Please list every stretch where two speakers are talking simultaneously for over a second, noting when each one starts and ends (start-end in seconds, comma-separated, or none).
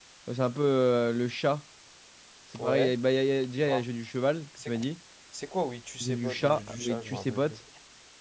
6.0-7.4